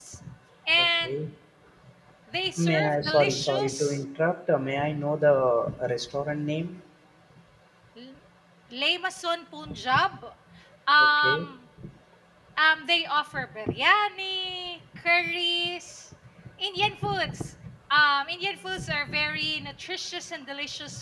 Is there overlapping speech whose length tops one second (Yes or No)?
Yes